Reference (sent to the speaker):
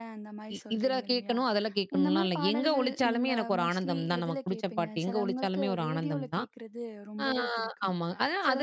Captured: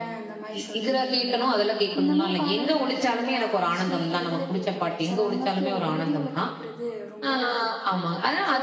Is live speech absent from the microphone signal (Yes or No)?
Yes